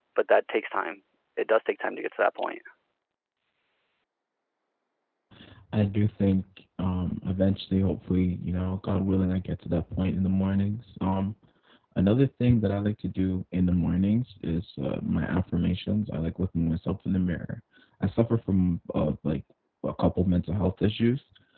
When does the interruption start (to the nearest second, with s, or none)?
none